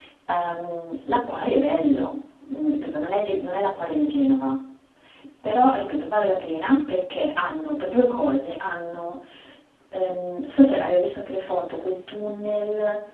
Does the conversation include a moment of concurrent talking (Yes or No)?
No